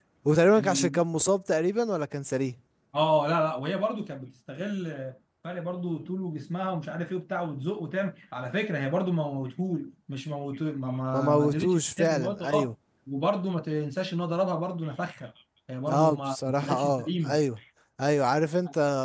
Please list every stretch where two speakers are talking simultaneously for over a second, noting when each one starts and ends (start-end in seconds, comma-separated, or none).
11.1-12.7, 15.9-17.4